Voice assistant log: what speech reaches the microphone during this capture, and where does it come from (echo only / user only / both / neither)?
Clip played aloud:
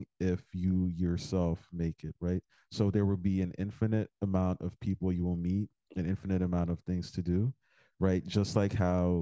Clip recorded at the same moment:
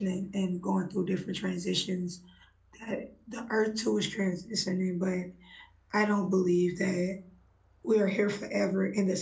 user only